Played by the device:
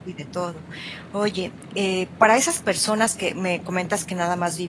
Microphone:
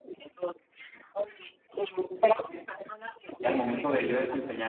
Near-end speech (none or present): present